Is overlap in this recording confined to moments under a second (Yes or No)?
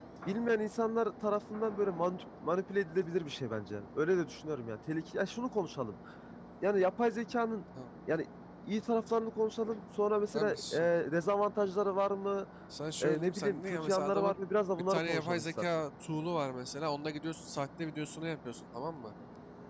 No